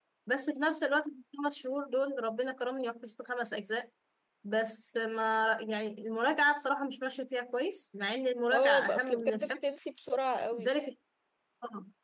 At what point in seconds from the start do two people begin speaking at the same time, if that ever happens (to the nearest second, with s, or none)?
9 s